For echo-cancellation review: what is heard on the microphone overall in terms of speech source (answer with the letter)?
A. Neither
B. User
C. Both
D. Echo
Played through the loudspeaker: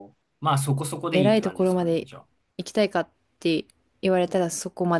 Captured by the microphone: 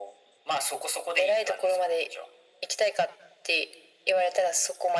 D